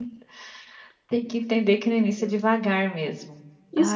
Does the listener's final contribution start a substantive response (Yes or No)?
Yes